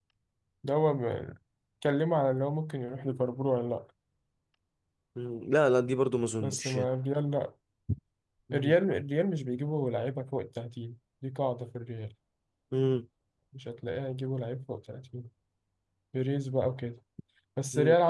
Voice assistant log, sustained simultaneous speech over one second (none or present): none